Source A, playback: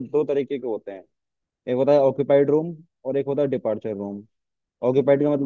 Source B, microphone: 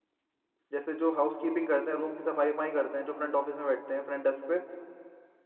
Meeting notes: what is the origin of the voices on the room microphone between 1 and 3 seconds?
user only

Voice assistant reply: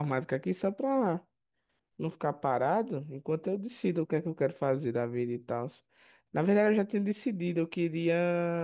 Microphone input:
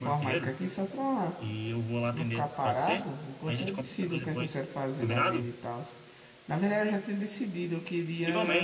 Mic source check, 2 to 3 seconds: both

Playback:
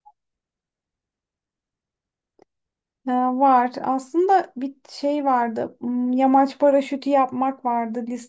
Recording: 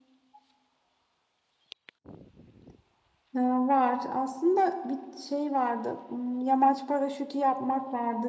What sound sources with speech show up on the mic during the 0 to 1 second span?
neither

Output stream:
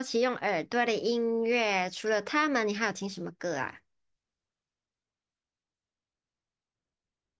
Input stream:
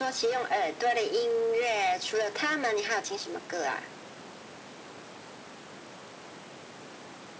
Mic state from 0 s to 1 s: echo only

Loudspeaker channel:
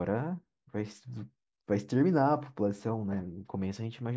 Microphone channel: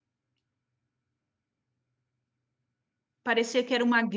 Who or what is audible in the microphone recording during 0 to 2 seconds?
neither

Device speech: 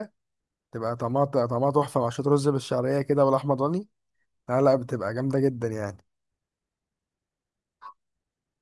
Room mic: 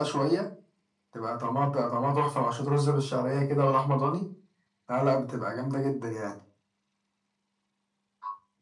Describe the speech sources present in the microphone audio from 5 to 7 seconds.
echo only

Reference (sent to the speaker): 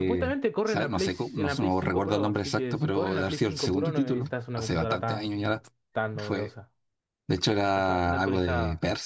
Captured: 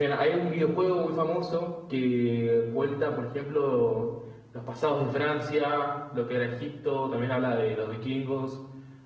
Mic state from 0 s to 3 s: user only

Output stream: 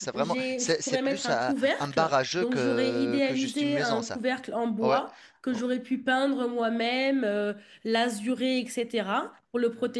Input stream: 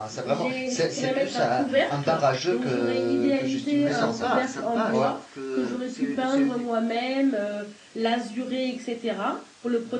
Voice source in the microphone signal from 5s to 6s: both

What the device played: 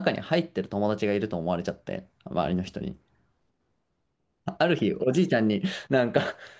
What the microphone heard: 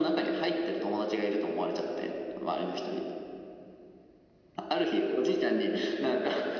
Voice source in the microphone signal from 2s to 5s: echo only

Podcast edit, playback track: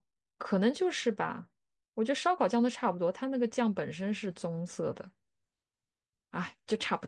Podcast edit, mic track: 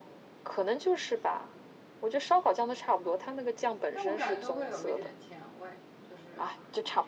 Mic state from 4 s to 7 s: both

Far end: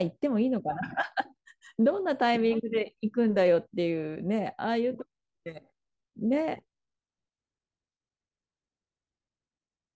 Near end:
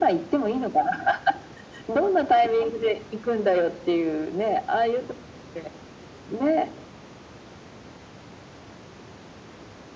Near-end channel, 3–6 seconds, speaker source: echo only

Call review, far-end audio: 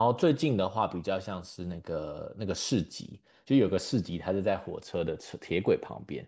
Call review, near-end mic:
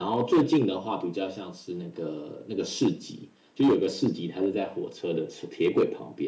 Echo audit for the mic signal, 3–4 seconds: echo only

